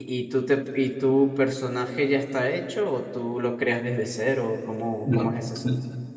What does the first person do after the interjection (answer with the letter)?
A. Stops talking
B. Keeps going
A